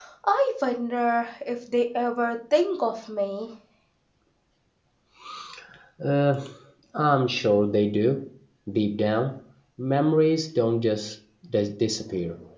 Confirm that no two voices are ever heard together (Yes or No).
Yes